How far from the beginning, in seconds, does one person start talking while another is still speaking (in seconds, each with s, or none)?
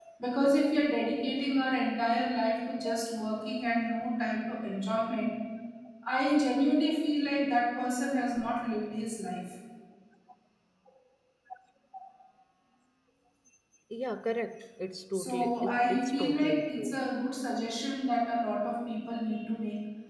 15.1 s